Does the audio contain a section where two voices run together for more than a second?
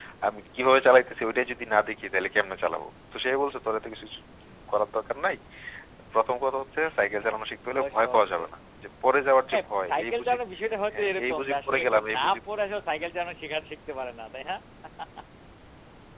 Yes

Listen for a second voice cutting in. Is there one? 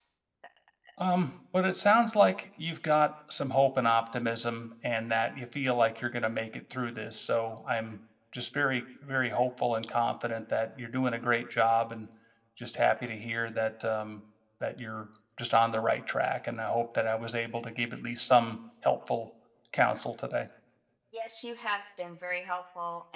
No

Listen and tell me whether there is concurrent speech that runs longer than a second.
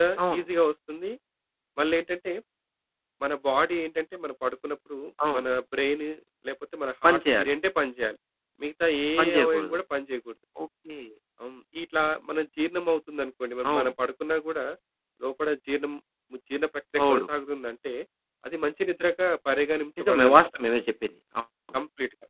No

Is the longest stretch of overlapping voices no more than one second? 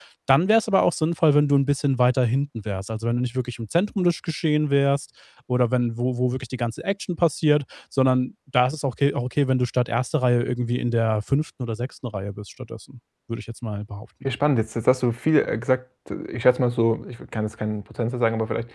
Yes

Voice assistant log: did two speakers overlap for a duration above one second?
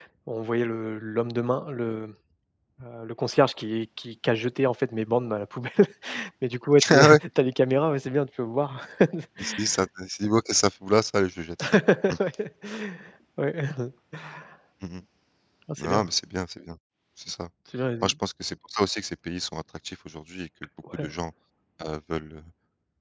No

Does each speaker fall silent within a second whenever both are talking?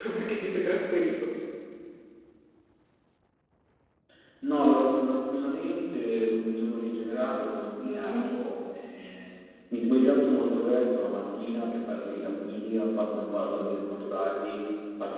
Yes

